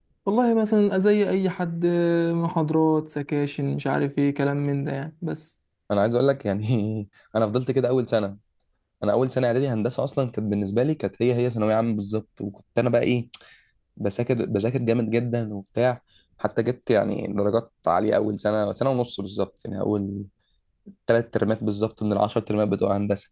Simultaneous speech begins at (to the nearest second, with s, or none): none